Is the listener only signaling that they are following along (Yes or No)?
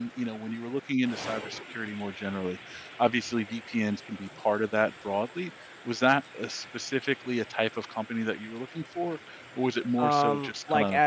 No